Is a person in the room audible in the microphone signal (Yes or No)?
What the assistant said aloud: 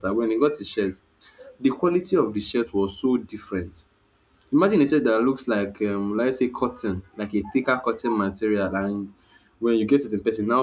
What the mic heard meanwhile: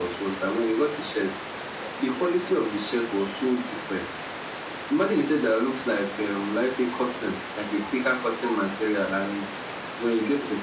No